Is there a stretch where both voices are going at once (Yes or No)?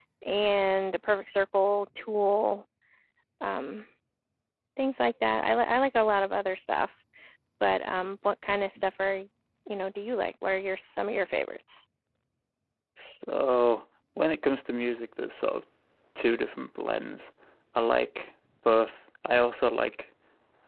No